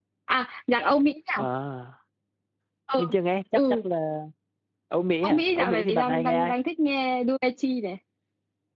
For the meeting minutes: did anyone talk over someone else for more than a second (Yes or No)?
Yes